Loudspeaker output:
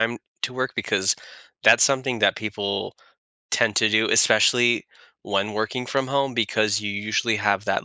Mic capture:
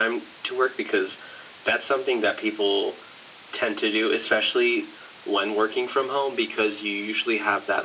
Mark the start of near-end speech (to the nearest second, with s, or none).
none